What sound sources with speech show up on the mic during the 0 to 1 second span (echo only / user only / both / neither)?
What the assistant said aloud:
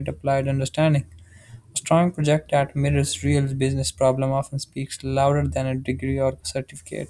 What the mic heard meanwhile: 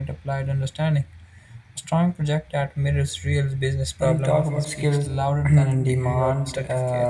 echo only